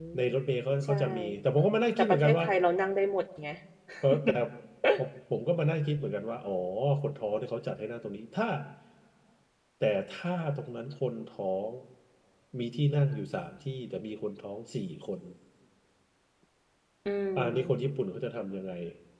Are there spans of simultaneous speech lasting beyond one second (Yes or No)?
No